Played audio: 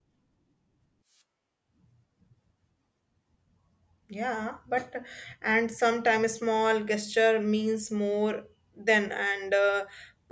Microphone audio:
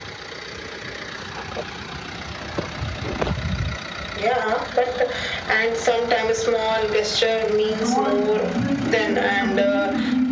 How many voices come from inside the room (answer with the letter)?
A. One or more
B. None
A